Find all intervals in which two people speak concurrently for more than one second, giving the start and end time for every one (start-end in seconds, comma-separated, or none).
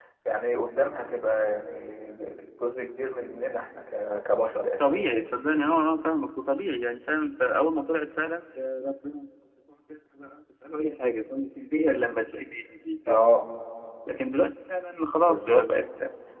none